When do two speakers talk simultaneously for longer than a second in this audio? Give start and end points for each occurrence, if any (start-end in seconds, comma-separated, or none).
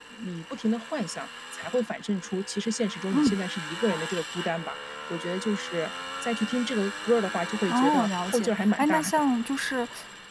7.7-9.2